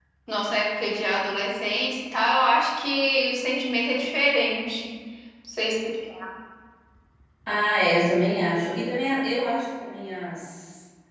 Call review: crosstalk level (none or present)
none